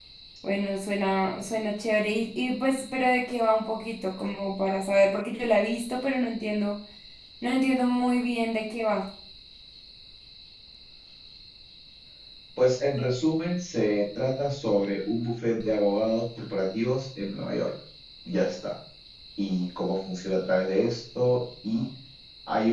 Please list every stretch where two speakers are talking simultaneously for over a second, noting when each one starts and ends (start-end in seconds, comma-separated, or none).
none